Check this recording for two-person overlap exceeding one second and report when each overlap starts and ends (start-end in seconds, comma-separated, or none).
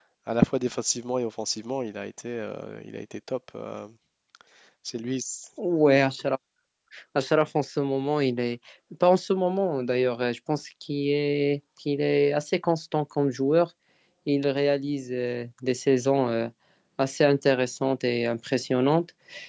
none